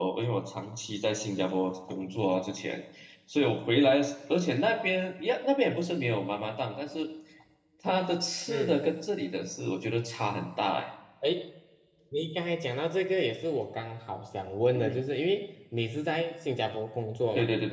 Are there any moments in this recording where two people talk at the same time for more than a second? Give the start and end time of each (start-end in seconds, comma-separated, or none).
none